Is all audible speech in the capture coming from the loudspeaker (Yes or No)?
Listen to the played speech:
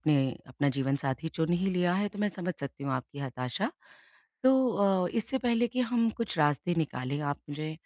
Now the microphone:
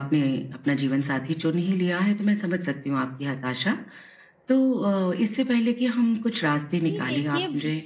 No